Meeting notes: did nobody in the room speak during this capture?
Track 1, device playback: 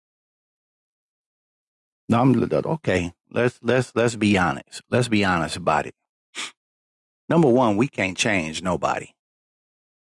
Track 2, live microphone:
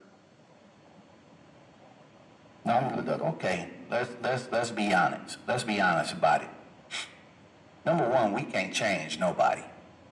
Yes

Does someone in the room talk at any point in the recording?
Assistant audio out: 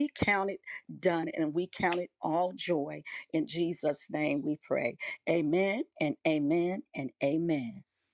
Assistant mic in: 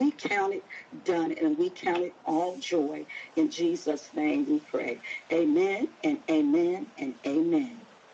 No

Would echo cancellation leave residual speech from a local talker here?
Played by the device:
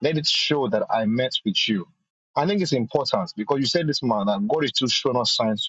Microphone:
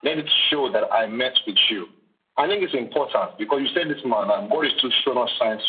No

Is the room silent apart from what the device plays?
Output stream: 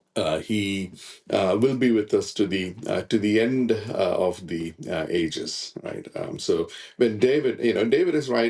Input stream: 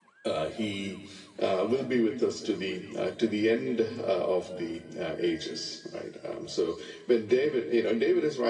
Yes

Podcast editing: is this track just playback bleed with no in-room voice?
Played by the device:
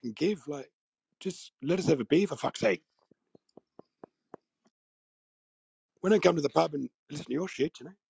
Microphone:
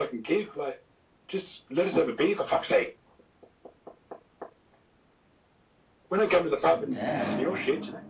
No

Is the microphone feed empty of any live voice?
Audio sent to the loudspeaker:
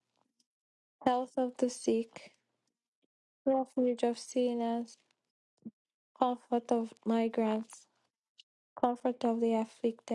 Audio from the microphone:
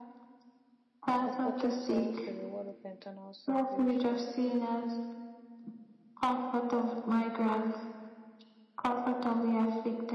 No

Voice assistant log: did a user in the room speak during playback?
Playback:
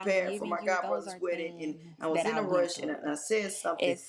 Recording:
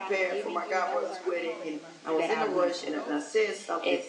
Yes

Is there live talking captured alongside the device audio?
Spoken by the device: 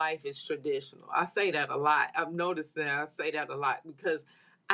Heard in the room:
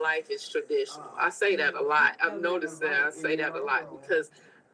Yes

